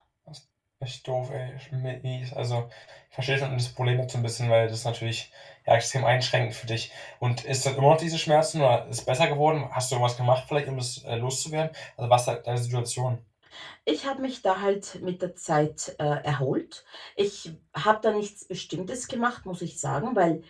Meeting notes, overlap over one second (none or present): none